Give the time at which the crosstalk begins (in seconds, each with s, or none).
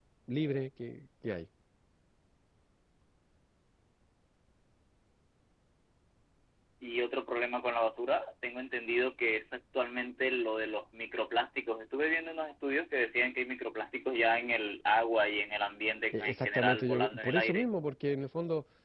16.1 s